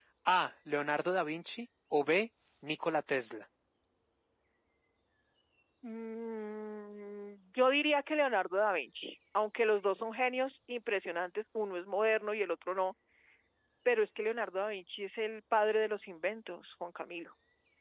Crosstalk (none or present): none